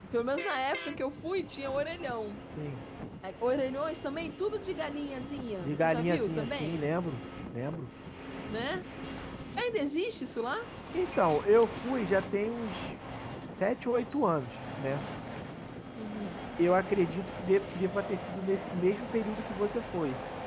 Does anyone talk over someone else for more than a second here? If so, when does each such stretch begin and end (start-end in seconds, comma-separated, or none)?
5.6-6.8